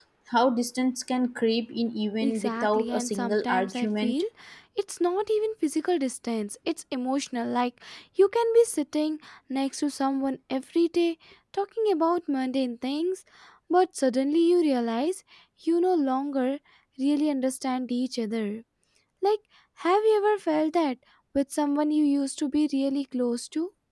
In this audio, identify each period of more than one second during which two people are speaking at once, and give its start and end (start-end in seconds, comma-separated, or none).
2.2-4.1